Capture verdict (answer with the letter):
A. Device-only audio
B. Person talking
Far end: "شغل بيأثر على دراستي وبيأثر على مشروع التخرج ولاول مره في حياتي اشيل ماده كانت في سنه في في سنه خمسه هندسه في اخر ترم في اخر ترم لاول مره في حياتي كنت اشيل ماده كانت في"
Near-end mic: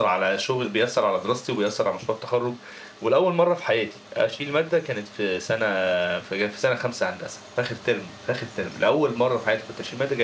A